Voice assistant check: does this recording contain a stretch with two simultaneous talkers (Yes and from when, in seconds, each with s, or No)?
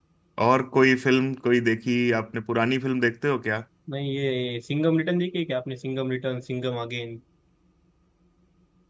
No